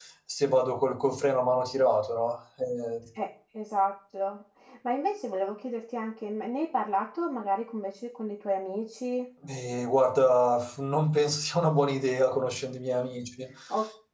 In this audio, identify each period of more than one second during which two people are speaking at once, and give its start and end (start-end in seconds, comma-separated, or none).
none